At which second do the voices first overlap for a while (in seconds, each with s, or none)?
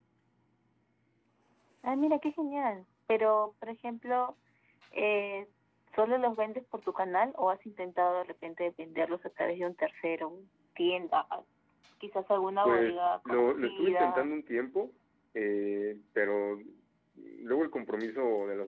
12.6 s